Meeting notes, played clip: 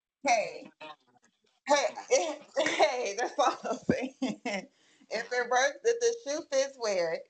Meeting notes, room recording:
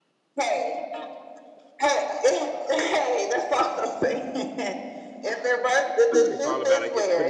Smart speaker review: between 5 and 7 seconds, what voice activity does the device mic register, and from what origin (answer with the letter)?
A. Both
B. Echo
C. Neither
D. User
A